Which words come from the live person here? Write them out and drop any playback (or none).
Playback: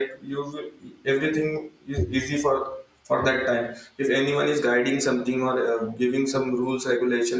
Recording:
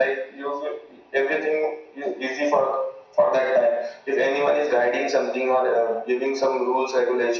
none